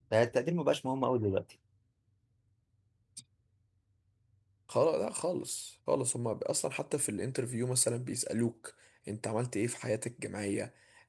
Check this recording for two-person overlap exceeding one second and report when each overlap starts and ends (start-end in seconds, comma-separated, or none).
none